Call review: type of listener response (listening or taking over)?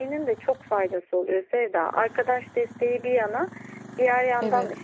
listening